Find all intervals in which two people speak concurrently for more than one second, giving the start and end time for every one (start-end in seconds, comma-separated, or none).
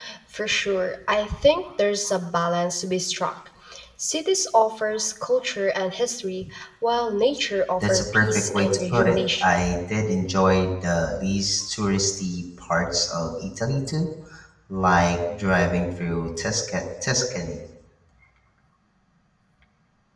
7.9-9.6